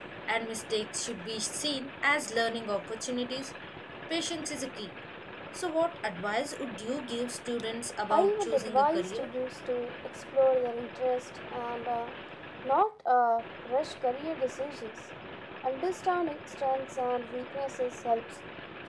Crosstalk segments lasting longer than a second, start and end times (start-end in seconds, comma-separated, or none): 8.1-9.3